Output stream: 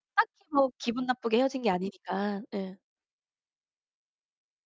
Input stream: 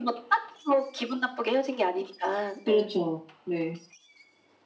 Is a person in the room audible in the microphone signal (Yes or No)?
Yes